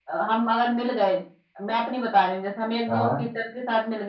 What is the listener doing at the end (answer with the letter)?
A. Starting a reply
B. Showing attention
B